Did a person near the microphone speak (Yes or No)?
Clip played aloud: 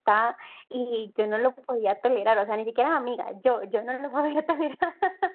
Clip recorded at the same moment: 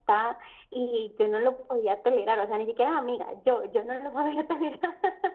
No